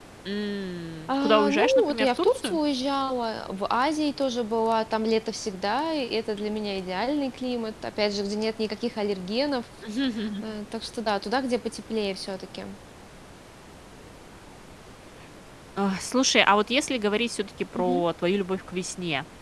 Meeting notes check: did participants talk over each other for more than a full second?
Yes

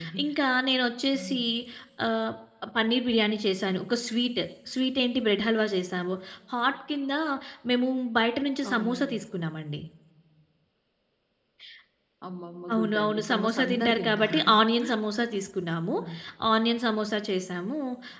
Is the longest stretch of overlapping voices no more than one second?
No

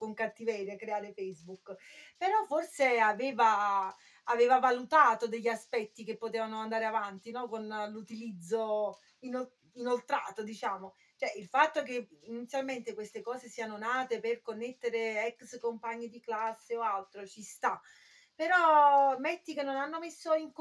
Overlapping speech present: No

